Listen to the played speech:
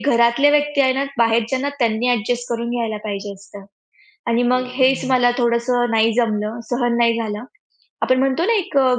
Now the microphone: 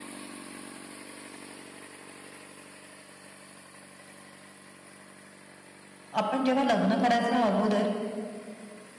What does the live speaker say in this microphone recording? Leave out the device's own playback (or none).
आपण जेव्हा लग्न करायच्या अगोदर